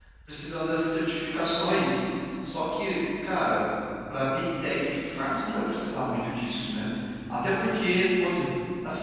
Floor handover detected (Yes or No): No